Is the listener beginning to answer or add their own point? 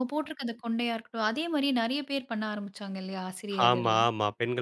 Yes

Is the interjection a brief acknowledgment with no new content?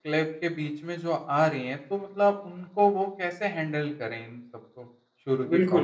No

